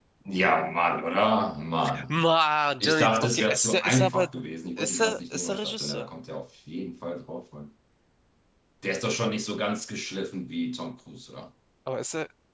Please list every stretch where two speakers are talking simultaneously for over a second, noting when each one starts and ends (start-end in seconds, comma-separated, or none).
2.8-4.3, 4.8-6.1